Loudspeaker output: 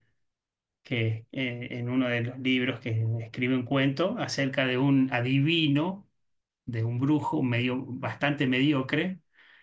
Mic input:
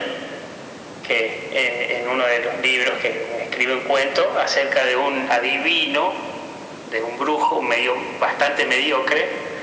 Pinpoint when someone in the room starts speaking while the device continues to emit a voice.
none

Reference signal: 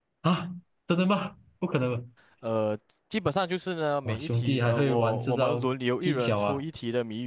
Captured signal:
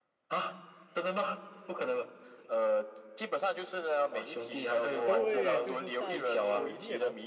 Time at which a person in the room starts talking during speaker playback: 5.0 s

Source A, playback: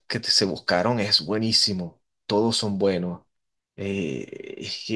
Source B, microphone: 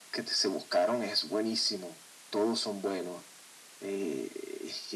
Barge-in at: none

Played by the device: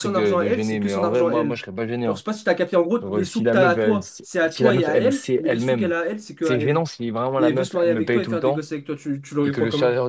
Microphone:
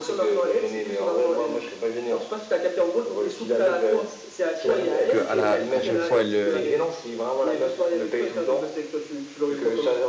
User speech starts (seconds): 5.1 s

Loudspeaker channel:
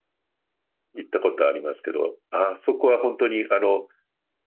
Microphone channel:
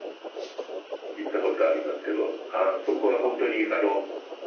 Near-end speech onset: none

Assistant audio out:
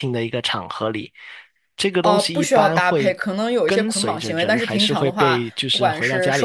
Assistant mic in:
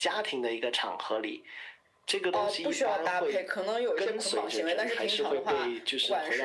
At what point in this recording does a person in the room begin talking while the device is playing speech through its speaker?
none

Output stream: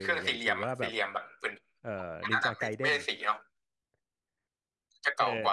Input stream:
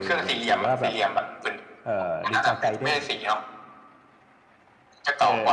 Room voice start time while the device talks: none

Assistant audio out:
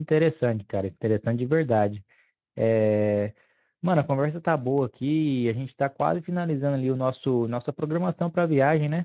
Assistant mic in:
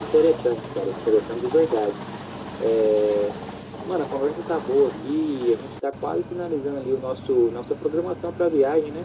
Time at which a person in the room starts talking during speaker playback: none

